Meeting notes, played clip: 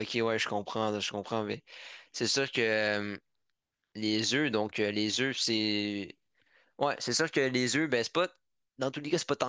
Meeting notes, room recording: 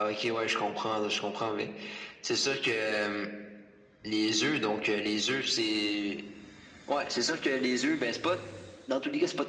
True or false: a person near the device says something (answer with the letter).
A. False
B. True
A